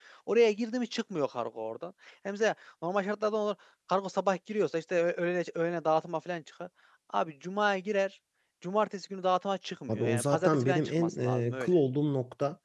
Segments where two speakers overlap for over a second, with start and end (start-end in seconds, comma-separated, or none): 9.9-11.7